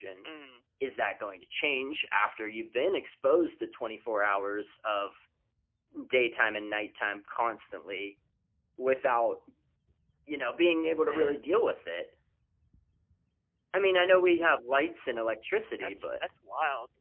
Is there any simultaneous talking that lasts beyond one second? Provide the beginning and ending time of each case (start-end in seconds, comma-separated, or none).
none